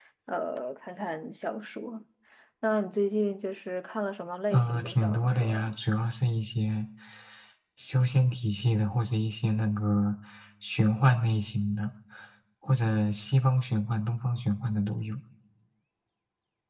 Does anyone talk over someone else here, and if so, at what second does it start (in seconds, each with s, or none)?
4.5 s